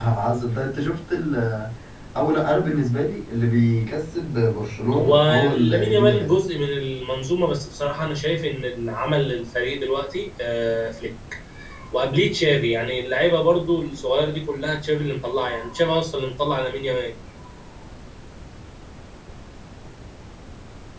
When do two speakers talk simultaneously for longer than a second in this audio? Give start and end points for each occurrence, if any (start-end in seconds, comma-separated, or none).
4.9-6.3